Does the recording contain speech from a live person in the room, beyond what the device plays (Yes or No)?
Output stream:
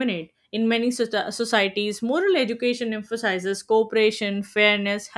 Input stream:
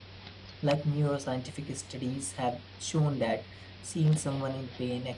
Yes